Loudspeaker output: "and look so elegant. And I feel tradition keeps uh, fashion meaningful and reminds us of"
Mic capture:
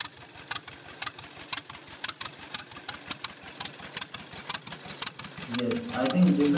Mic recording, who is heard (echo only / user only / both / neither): user only